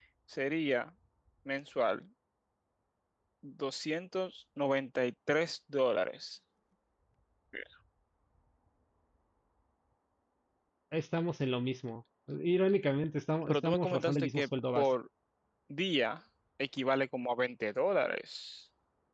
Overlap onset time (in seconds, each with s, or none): 13.5 s